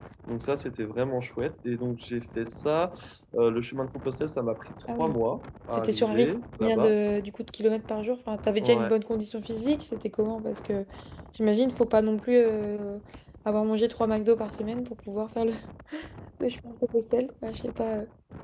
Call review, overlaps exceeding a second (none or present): present